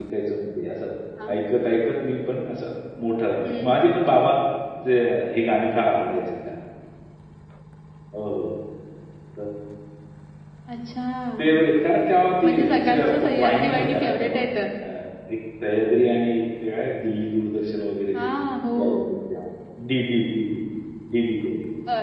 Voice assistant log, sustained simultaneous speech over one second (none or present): present